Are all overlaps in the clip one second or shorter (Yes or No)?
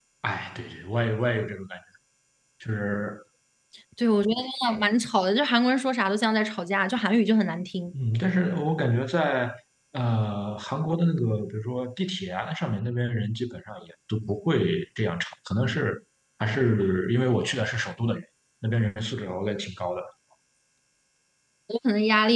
Yes